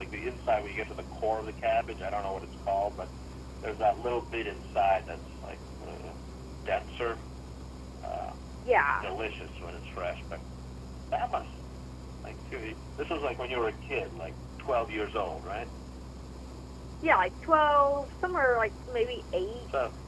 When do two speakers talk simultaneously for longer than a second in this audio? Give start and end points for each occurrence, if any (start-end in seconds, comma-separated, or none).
none